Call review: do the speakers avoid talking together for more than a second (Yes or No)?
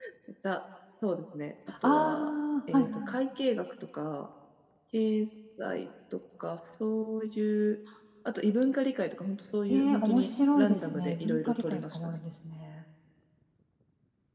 No